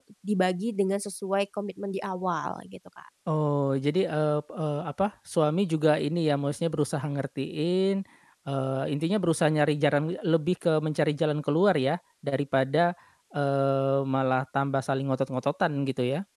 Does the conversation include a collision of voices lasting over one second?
No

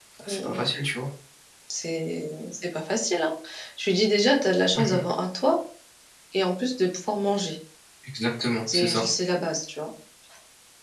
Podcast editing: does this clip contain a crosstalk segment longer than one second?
No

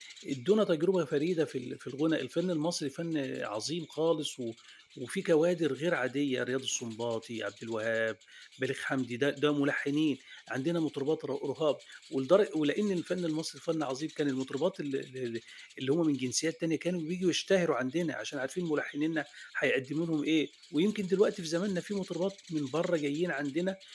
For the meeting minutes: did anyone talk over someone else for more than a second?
No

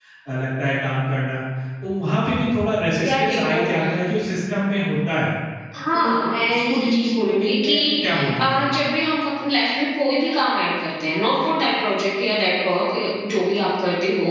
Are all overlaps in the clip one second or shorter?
No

